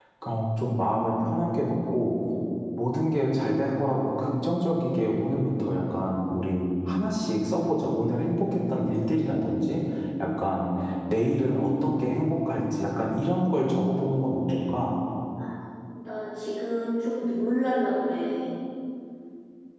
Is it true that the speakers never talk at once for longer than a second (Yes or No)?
Yes